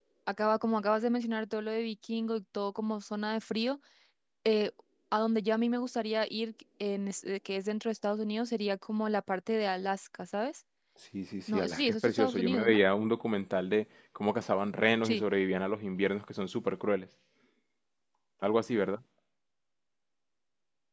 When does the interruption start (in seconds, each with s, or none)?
11.5 s